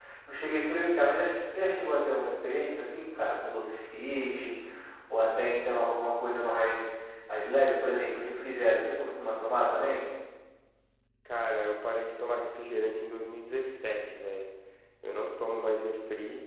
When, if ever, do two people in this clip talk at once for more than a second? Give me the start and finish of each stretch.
none

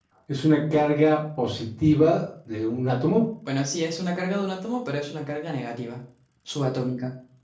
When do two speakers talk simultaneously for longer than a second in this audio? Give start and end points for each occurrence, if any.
none

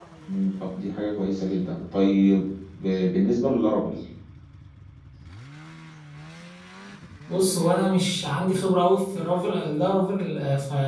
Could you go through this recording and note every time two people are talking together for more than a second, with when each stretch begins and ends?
none

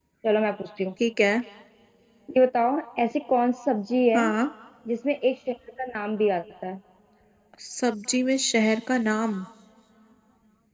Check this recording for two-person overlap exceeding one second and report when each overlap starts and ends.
none

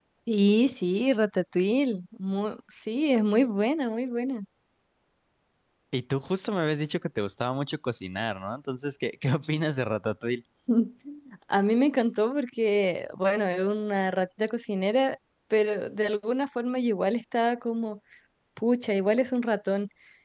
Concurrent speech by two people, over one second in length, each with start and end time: none

